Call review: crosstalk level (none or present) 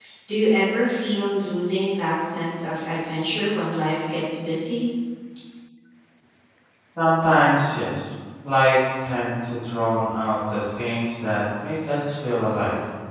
none